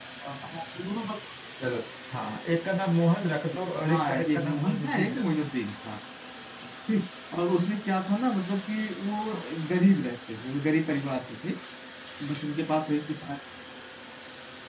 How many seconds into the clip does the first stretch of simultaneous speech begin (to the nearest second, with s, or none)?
4 s